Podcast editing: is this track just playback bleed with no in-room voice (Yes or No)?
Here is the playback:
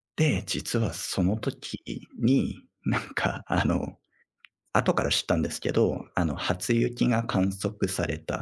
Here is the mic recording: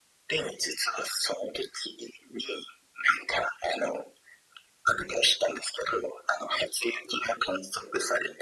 Yes